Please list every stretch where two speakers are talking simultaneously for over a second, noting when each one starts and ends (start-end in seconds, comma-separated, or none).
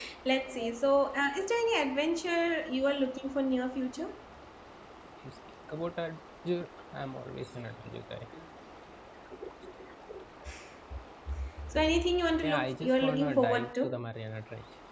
12.4-14.0